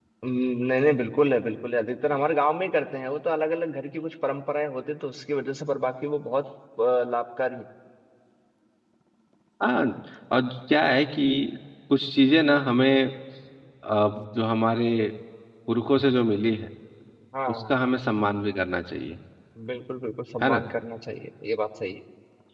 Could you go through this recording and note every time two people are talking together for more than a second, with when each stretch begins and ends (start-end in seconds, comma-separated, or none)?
none